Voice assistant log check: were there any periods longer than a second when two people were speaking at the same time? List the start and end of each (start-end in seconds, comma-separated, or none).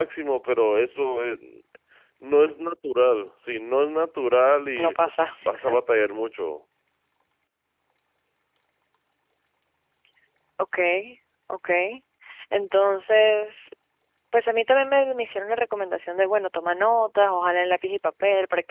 none